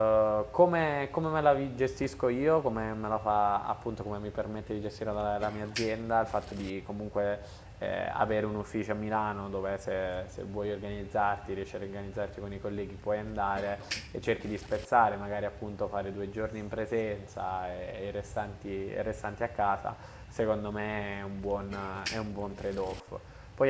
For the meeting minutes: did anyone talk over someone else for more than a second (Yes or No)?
No